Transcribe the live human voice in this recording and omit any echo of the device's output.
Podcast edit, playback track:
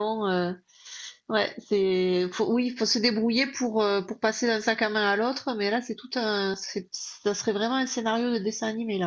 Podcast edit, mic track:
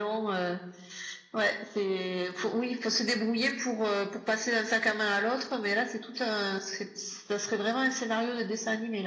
none

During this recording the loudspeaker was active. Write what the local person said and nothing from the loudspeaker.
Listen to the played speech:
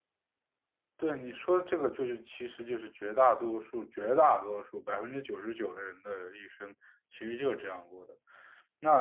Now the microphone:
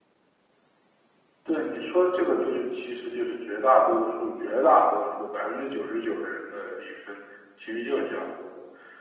none

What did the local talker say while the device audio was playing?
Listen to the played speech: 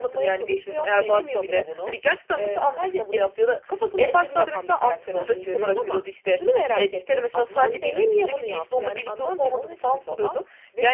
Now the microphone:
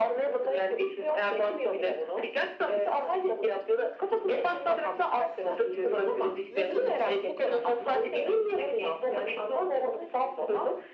ve kanıt. Bu kadar.

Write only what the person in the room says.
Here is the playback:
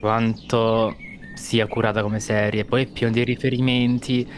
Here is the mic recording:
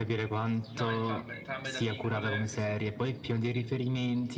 No, entrambe, entrambe da piccole, sì, sì,

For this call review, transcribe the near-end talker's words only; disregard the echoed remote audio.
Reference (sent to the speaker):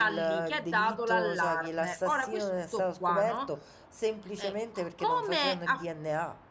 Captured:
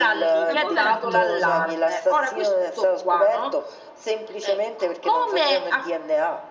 sta povera Crista

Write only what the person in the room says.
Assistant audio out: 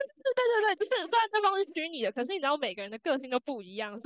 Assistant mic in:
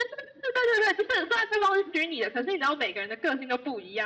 none

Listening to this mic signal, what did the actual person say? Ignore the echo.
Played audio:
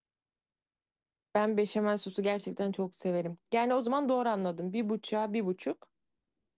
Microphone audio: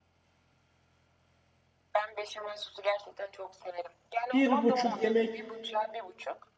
Bir buçuk yemek

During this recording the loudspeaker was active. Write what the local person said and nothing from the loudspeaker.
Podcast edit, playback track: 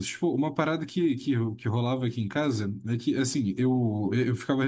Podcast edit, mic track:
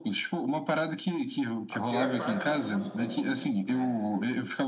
a pior parte são as contas, né?

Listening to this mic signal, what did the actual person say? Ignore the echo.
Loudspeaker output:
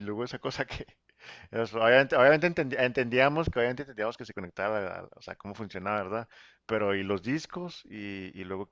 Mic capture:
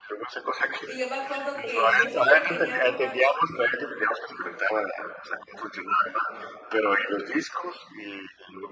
Y yo me acuerdo que yo siempre quería una

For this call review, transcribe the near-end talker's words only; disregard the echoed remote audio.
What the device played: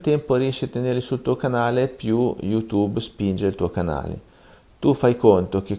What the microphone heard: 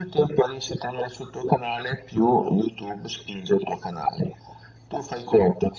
none

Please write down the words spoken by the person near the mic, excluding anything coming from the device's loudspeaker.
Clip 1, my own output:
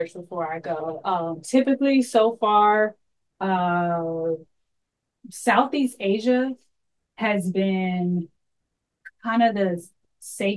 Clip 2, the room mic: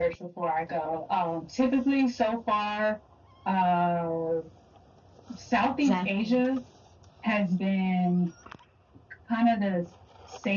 Exactly.

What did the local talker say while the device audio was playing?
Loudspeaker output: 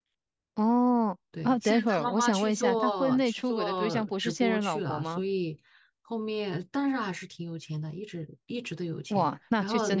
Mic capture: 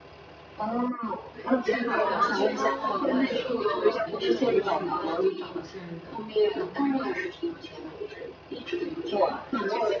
对，而且他很快的就离婚了，以后很快的就找了现任的老婆。

